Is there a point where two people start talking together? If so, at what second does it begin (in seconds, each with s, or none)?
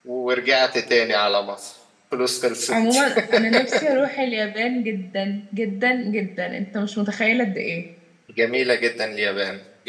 none